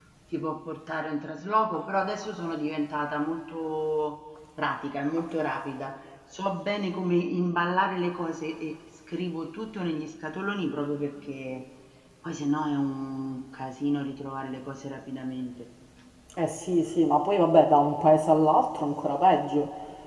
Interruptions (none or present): none